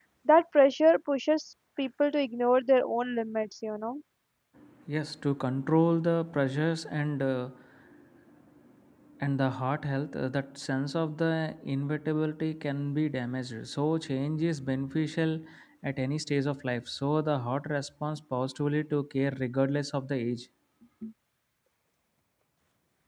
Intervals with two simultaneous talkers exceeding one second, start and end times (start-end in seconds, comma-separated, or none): none